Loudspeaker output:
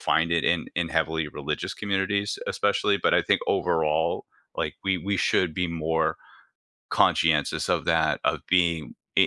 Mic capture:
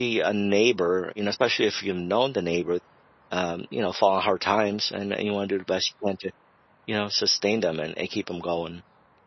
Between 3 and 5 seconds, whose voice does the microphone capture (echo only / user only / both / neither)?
user only